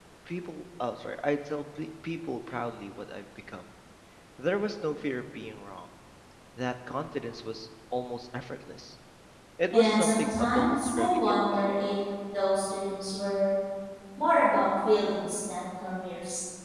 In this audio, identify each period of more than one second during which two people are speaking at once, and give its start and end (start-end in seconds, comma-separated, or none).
9.7-11.6